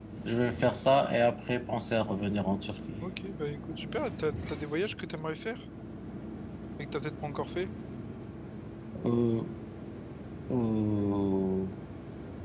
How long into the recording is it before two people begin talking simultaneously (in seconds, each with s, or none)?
none